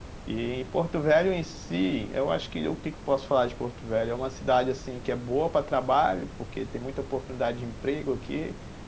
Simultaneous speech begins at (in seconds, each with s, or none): none